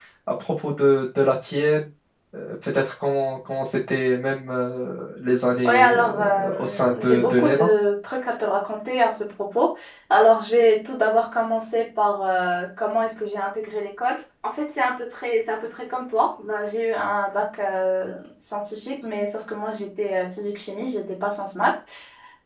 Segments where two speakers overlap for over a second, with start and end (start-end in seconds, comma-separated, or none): 5.7-7.6